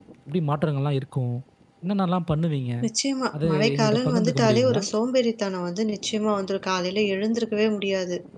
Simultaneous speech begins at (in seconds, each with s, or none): 3.3 s